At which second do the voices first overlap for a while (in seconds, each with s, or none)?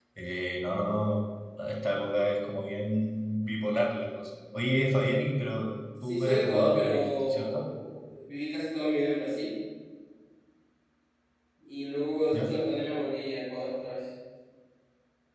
6.0 s